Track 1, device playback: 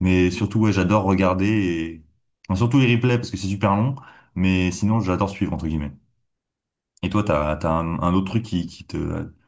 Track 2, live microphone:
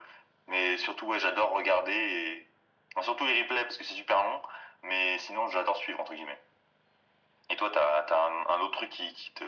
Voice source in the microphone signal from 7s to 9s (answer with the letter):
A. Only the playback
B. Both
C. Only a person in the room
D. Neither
A